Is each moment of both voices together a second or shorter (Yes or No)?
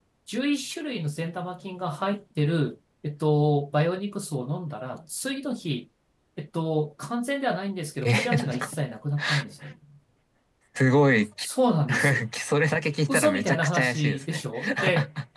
No